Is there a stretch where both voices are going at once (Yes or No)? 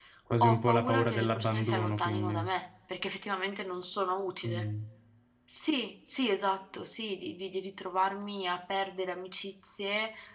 Yes